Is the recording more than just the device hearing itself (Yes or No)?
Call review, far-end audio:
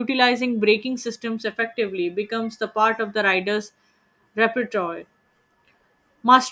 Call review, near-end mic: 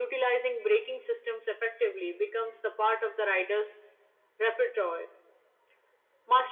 No